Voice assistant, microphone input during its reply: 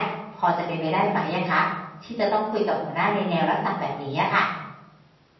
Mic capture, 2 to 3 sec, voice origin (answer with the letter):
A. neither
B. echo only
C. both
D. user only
B